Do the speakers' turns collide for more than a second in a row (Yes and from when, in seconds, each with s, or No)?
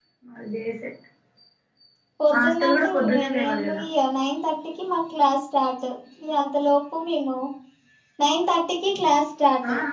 Yes, from 2.4 s